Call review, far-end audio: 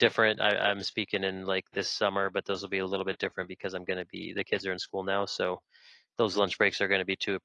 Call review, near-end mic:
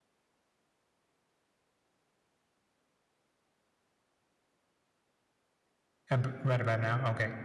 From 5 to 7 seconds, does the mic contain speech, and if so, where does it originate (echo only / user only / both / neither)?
user only